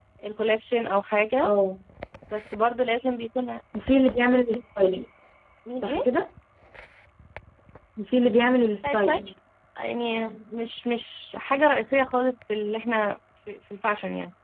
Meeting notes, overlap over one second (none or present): none